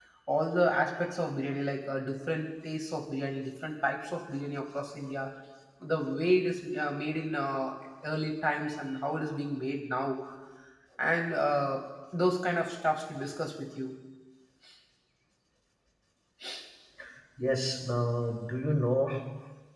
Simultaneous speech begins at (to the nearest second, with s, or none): none